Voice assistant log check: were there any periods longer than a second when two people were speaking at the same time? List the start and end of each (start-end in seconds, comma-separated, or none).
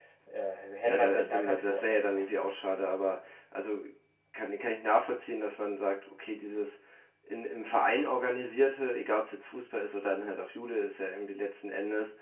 0.8-2.5